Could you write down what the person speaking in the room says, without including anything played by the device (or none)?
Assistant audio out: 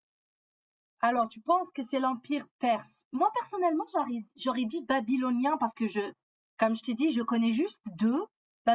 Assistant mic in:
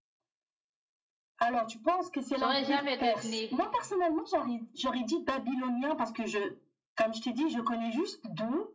j'aurais jamais deviné.